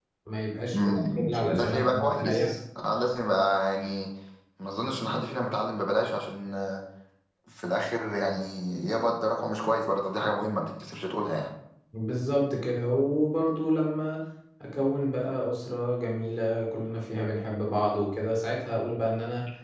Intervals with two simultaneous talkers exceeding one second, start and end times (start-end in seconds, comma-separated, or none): 0.7-2.5